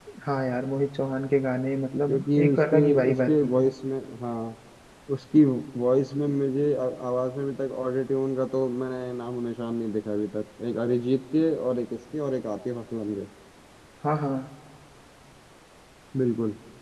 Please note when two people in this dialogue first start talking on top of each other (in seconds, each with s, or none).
2.1 s